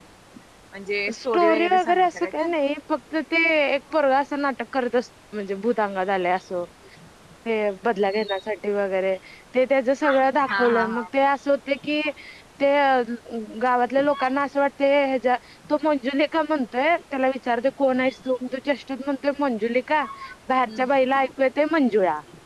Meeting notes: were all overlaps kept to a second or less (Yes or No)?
No